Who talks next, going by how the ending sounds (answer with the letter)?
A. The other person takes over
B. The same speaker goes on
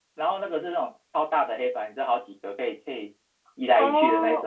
A